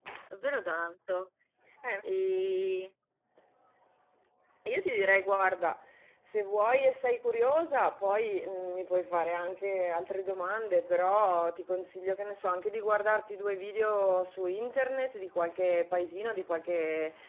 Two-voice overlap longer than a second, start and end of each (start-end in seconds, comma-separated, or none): none